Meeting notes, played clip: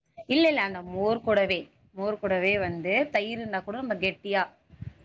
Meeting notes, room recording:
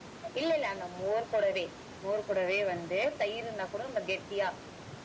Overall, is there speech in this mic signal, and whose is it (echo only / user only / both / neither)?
echo only